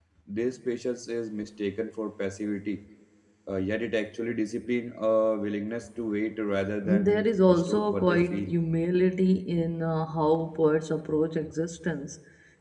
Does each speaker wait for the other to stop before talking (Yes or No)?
No